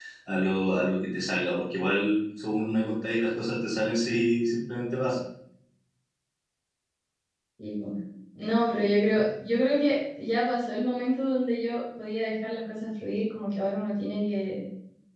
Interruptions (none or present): none